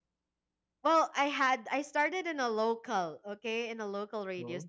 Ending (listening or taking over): listening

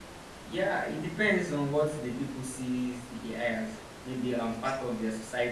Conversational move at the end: listening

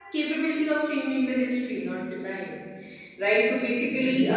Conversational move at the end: listening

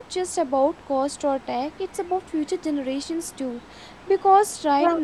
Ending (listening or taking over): listening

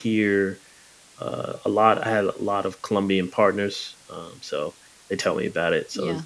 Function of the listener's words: taking over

